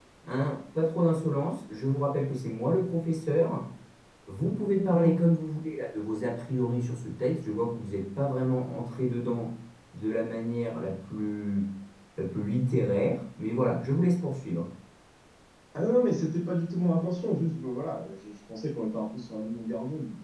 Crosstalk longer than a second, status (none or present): none